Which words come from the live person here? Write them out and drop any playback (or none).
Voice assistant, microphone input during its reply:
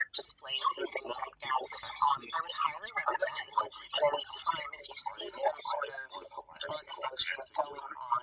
none